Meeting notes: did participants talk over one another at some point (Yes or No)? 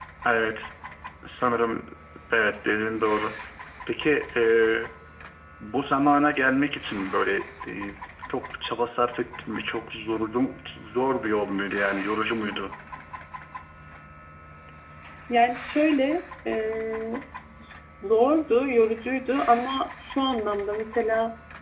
No